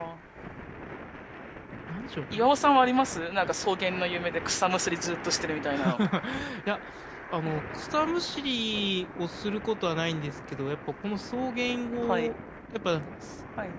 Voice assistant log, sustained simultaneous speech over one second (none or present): none